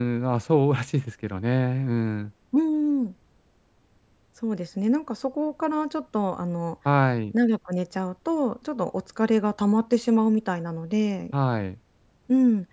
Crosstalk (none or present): none